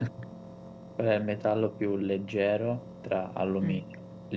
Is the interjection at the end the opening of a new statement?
No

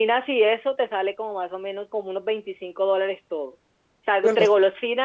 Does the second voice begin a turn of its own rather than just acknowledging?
No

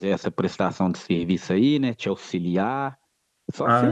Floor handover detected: Yes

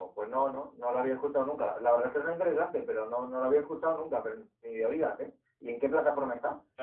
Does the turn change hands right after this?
Yes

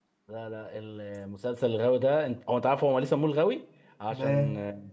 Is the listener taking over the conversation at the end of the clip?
No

